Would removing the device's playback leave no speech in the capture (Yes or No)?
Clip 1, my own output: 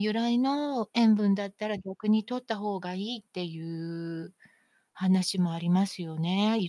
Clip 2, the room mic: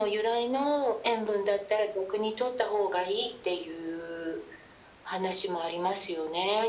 Yes